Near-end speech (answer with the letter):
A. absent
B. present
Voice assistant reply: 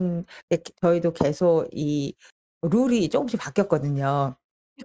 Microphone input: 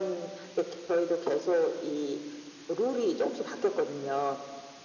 A